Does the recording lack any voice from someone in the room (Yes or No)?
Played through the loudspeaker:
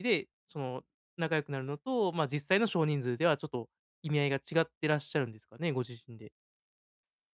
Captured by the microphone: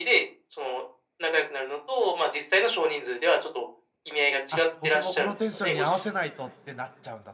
No